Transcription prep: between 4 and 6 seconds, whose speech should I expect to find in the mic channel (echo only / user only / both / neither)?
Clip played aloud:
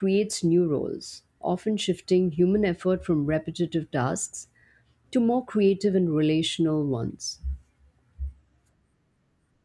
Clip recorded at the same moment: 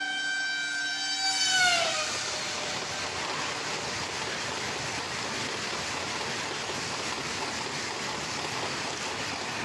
neither